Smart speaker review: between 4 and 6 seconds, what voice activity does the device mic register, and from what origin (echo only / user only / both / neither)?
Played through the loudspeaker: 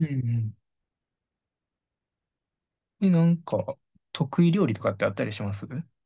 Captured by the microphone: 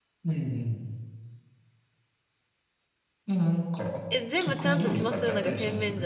both